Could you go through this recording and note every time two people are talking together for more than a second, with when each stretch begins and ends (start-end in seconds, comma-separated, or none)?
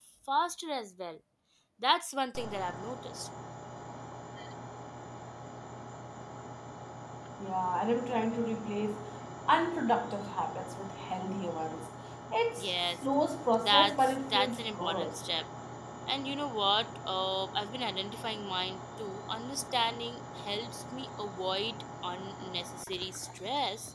13.6-15.2